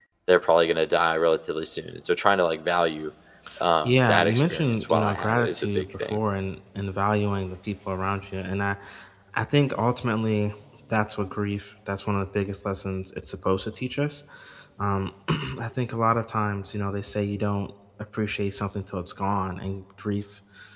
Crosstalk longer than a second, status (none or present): present